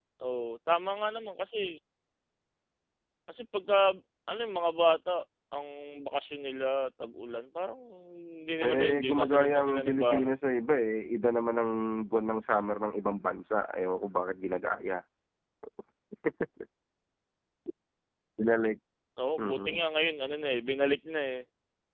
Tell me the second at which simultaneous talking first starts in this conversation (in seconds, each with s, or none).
8.6 s